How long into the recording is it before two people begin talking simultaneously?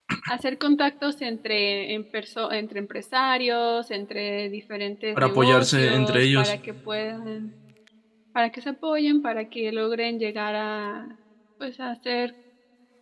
5 s

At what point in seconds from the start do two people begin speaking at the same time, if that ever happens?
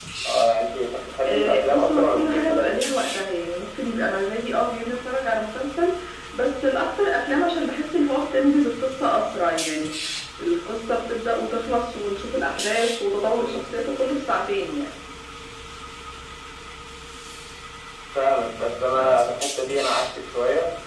1 s

